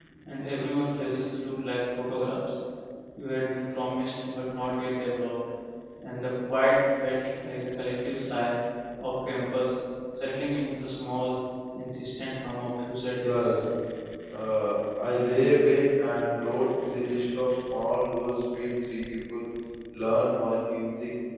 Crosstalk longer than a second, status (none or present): none